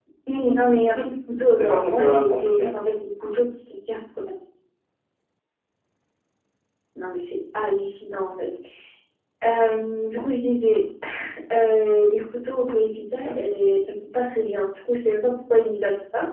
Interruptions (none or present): present